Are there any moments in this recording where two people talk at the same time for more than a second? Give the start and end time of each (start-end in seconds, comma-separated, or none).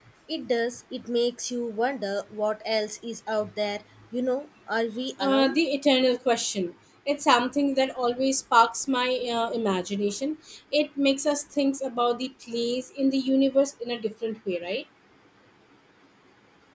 none